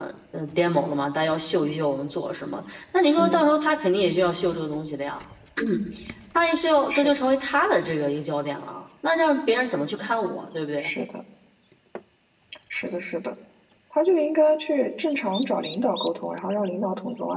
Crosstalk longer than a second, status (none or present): none